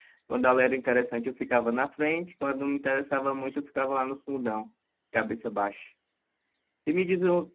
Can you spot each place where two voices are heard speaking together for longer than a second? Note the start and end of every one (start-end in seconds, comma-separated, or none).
none